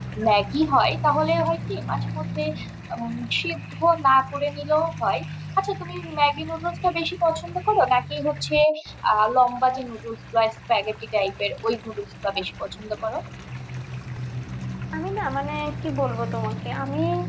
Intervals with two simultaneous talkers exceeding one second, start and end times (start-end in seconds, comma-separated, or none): none